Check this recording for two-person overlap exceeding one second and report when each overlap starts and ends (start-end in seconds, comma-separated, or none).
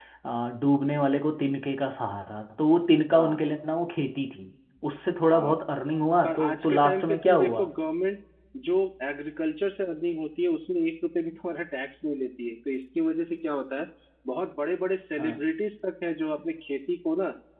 6.2-7.7